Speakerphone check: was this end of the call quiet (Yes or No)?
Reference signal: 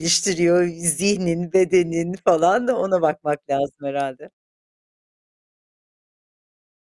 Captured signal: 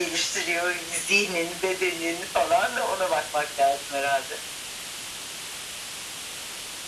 Yes